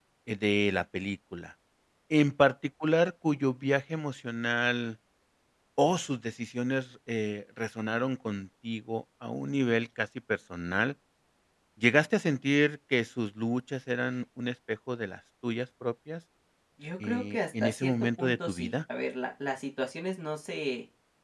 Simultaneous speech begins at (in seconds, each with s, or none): 17.0 s